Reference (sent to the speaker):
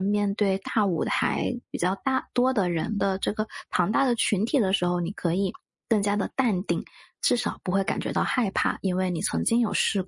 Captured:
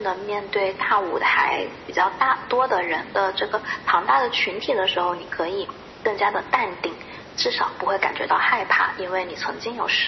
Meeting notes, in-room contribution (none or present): none